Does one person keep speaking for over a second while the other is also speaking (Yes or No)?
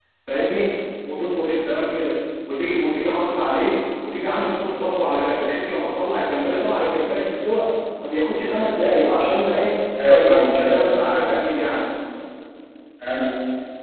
Yes